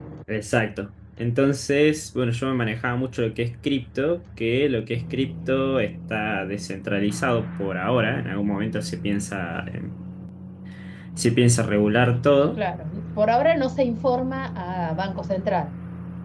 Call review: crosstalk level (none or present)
none